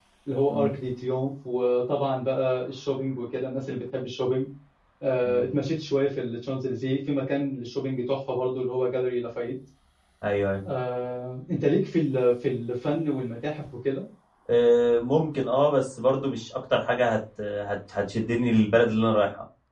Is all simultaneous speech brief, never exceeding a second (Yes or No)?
Yes